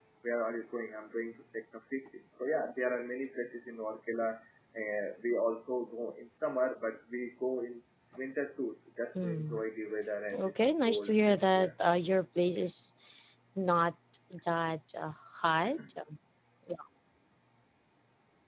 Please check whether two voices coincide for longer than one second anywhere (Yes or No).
Yes